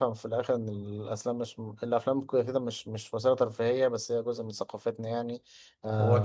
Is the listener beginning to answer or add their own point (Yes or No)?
Yes